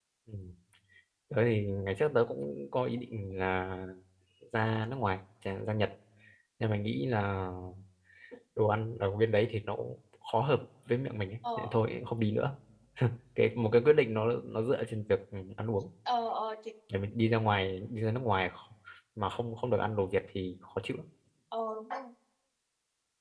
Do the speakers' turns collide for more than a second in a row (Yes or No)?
No